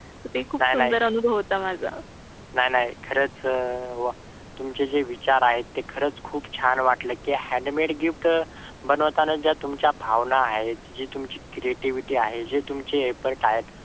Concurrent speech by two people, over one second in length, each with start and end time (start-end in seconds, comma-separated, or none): none